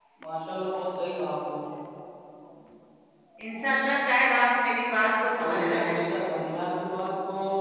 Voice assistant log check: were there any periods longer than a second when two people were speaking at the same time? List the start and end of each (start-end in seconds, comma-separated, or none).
none